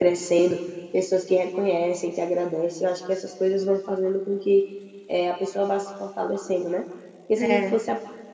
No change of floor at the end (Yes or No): Yes